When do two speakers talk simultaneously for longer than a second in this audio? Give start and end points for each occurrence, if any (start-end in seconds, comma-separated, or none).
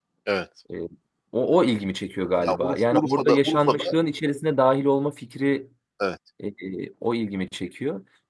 2.4-3.9